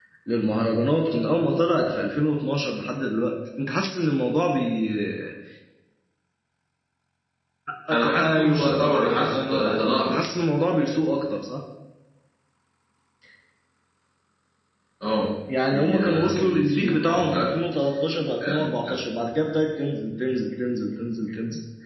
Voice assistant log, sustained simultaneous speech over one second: present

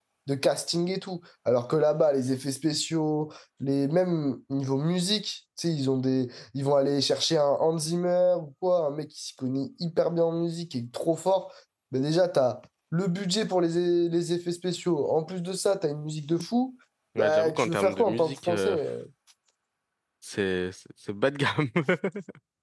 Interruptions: present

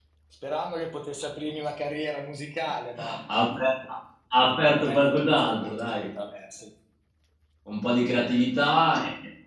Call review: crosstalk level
present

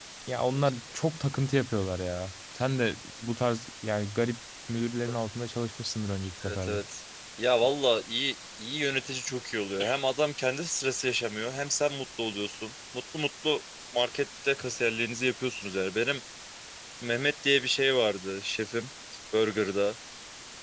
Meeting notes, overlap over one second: none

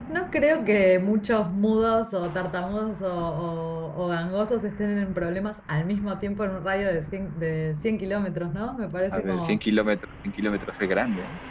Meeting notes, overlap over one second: none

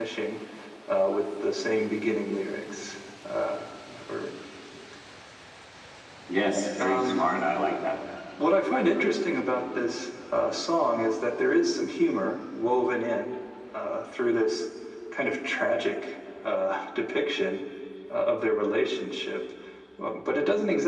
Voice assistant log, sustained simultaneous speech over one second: none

